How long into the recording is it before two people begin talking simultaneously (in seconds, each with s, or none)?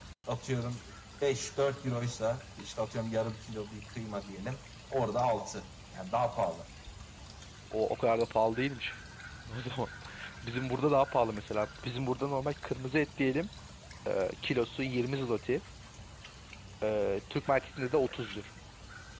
none